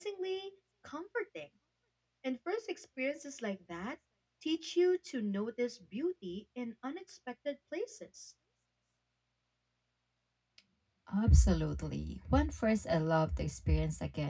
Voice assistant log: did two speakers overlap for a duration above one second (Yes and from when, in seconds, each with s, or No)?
No